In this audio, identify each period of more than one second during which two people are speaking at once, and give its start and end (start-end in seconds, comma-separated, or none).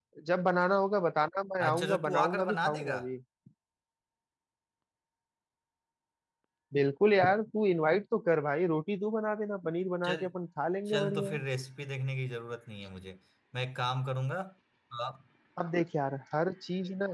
1.6-3.0